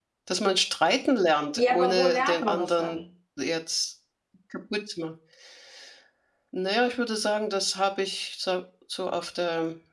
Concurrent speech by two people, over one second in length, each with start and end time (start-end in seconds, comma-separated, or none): 1.6-3.0